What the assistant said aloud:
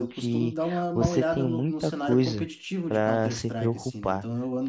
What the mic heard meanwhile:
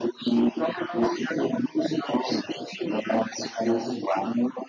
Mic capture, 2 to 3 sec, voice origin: echo only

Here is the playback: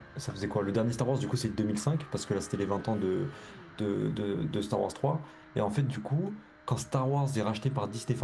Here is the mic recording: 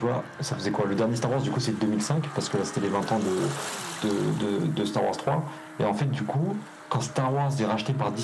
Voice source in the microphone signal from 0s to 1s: echo only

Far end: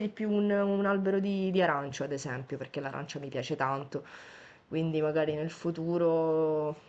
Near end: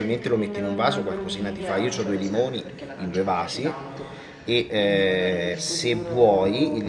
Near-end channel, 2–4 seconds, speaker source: both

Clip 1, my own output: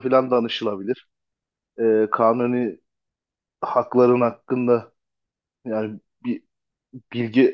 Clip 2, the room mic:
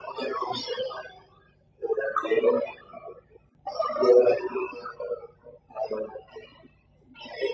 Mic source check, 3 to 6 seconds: echo only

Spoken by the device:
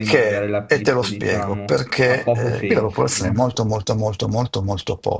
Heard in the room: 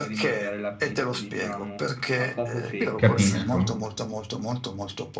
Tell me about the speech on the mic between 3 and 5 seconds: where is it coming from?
both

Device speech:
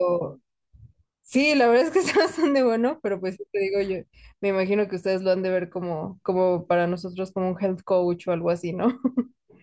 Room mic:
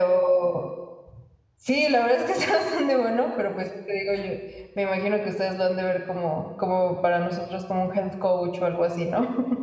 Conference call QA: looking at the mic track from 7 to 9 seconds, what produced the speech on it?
echo only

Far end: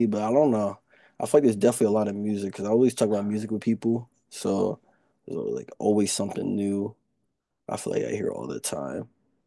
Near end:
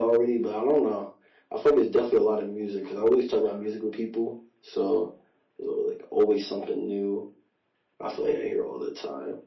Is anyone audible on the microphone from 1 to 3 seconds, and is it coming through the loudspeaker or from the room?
echo only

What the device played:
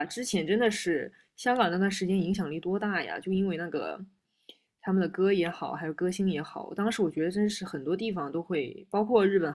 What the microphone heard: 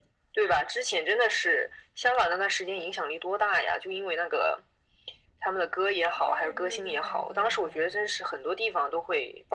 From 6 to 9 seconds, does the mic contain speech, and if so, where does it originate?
both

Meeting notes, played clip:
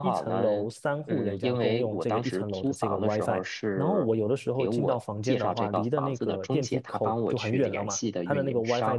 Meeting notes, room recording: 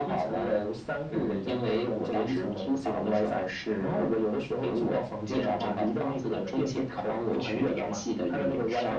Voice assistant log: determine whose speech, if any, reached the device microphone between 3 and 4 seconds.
echo only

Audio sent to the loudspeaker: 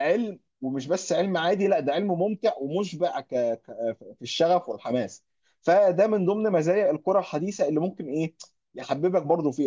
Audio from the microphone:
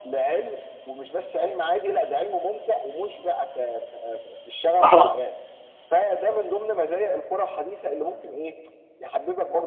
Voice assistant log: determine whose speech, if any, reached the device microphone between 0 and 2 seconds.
echo only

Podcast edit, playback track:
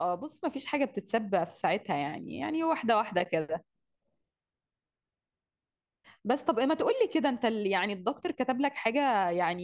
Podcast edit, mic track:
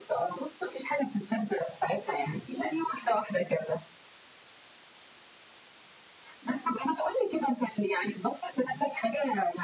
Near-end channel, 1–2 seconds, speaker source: echo only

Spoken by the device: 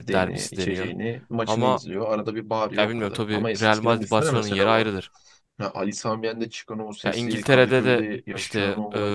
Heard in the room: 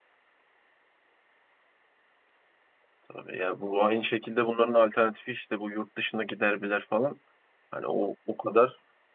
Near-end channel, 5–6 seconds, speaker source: user only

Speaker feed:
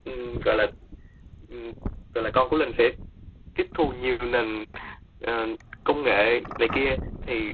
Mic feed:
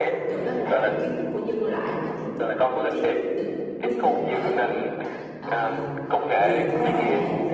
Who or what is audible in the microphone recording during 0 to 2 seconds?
both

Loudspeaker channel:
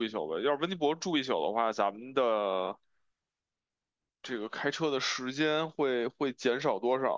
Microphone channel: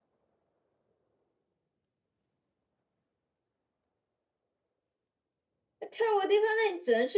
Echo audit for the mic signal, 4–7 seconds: user only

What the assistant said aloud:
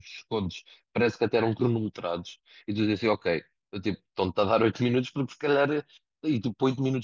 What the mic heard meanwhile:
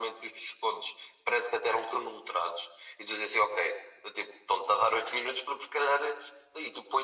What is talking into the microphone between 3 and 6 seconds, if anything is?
echo only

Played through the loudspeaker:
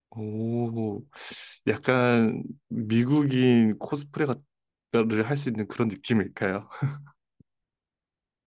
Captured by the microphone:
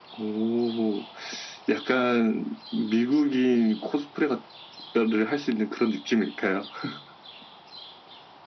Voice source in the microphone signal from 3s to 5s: echo only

